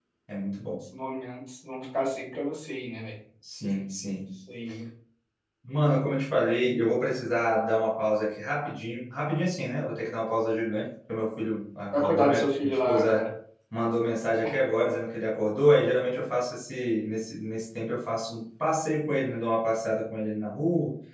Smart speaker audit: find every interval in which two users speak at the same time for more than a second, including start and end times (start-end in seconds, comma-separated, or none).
11.9-13.2